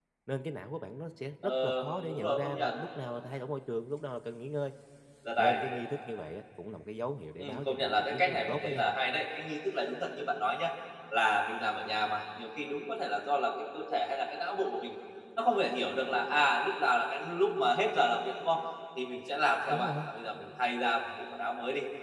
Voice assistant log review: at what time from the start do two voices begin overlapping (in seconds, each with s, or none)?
1.4 s